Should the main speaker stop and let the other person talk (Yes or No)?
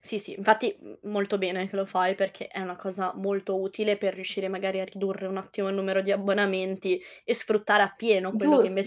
Yes